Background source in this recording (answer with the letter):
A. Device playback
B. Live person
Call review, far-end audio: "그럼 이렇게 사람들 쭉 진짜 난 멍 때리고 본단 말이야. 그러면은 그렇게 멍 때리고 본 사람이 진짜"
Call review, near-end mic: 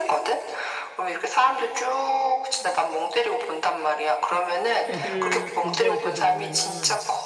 B